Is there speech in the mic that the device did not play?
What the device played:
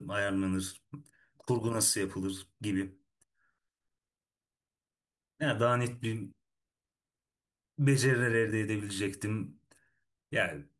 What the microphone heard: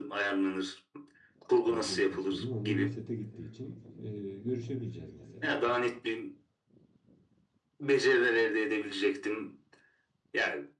Yes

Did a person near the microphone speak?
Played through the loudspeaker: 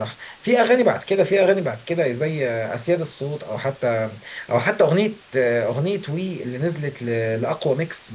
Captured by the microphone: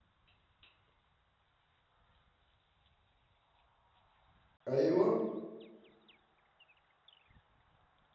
Yes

